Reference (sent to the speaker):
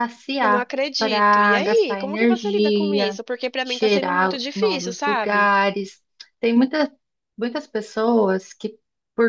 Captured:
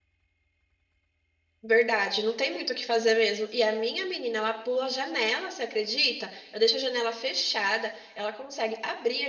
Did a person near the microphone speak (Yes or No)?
Yes